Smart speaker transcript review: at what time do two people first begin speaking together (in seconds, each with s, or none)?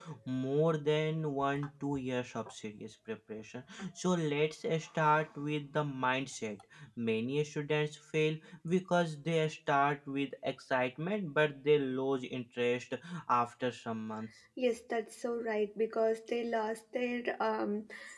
none